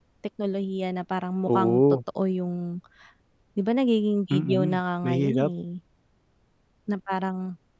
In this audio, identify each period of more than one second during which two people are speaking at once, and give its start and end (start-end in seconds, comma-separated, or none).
4.3-5.5